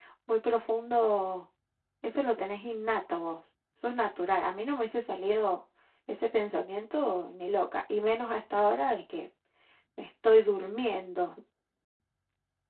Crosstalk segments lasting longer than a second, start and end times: none

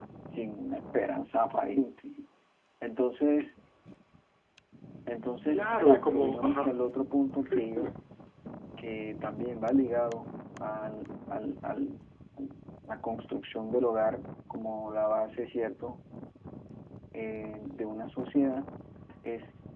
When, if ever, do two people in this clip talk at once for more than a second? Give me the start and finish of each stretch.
5.5-6.8

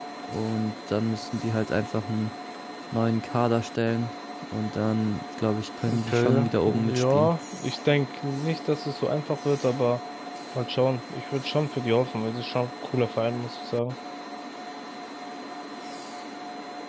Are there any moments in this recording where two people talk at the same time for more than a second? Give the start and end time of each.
5.9-7.3

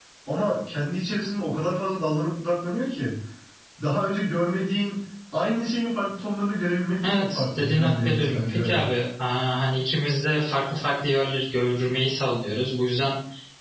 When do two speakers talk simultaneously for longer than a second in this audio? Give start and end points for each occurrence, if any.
7.0-8.8

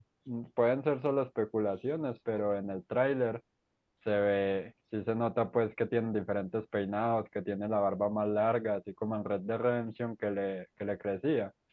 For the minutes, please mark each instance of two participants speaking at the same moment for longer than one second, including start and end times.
none

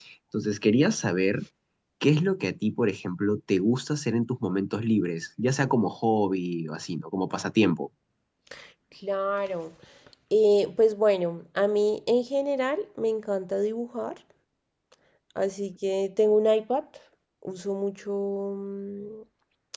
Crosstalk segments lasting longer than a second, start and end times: none

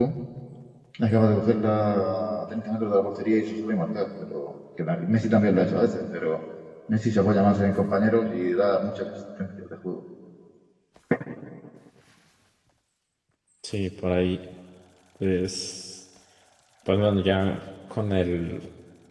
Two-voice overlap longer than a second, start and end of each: none

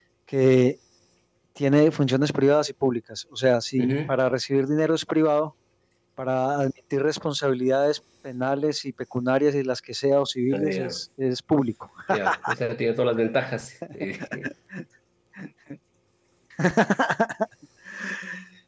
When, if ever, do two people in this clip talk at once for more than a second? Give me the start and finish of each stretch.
none

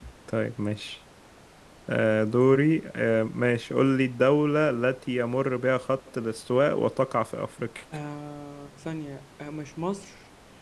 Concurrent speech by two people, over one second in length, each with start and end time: none

